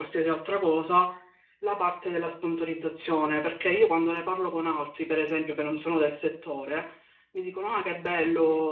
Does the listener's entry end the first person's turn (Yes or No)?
No